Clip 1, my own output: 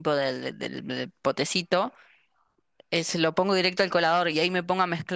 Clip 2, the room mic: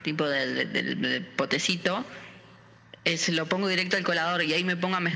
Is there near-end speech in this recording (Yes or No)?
No